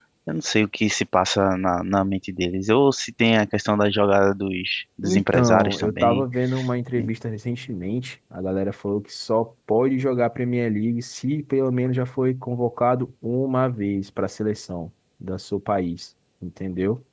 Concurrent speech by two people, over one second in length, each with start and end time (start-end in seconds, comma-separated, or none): 5.0-6.2